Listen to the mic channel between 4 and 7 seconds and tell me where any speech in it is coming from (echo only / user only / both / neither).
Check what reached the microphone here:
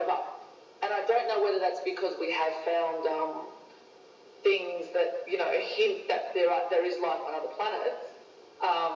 echo only